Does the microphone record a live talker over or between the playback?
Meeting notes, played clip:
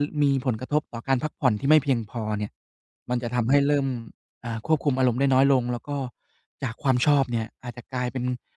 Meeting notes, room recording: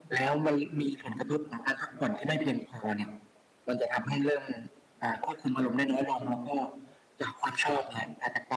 No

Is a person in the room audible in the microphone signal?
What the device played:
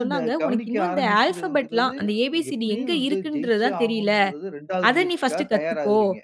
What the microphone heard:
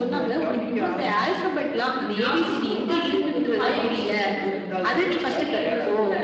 Yes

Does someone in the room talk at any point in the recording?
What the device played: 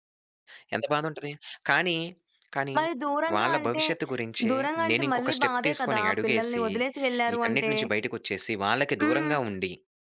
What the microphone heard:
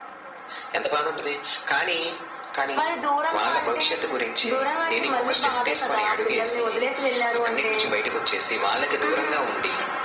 No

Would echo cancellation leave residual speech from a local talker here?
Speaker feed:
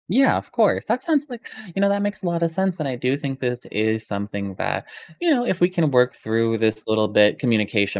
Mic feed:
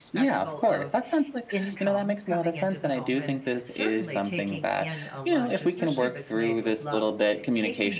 Yes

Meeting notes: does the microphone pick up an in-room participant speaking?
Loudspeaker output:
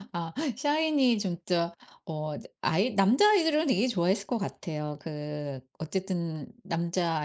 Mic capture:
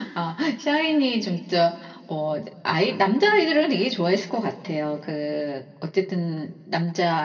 No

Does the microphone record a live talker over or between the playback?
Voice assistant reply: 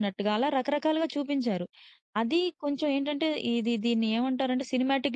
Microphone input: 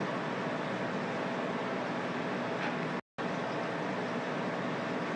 No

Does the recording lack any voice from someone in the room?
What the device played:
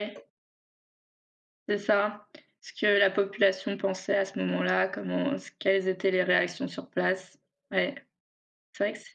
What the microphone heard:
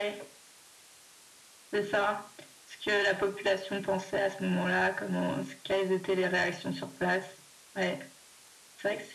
Yes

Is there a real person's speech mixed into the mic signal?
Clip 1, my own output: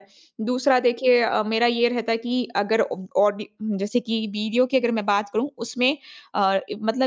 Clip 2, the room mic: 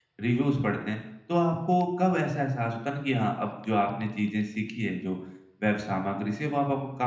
Yes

